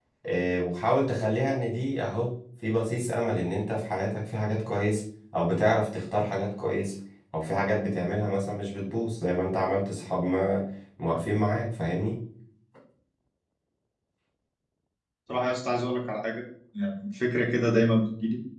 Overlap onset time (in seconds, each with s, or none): none